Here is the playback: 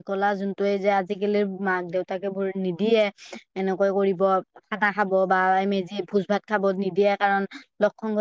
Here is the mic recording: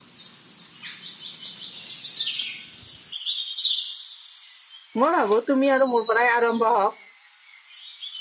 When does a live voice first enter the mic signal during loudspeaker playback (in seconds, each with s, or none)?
5.0 s